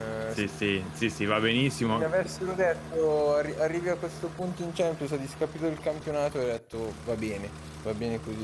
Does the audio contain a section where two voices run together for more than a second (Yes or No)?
No